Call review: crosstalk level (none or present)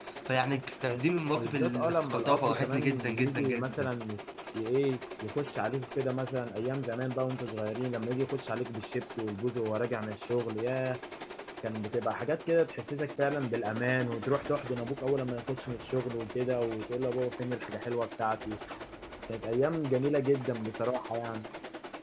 present